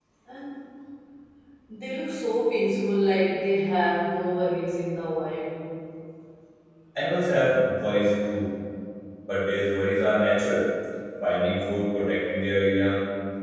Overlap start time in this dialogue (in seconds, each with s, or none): none